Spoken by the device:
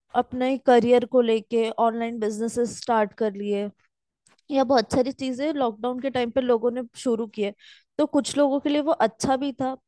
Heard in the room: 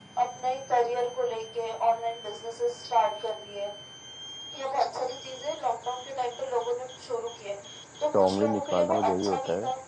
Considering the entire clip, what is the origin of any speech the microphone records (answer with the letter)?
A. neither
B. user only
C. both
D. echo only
C